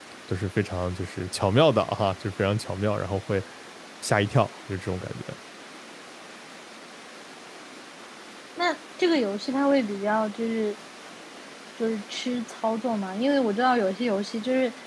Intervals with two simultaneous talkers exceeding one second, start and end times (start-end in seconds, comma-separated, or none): none